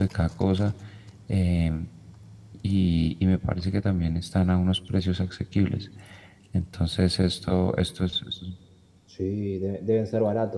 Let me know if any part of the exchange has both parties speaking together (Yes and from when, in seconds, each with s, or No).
No